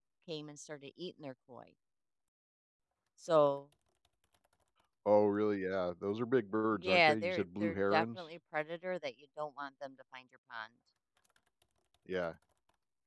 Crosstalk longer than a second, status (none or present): present